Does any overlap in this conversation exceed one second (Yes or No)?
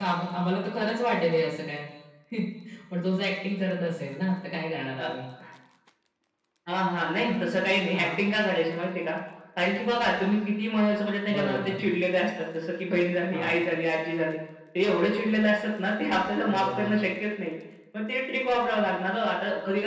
No